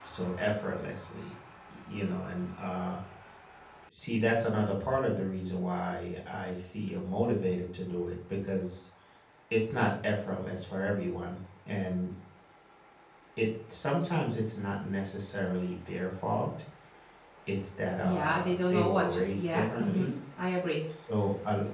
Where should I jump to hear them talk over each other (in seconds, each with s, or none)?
18.0 s